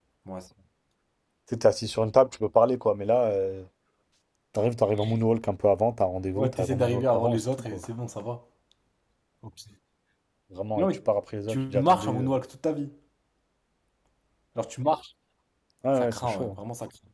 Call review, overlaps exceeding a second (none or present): present